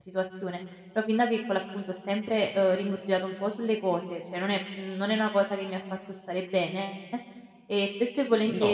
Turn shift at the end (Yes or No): No